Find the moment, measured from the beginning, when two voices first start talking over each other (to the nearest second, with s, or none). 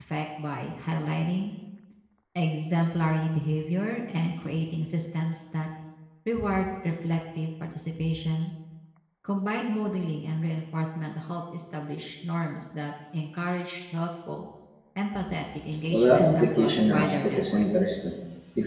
16 s